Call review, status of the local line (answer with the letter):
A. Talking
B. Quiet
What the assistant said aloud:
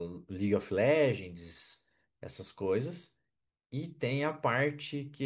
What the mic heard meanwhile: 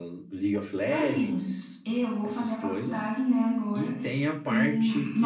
A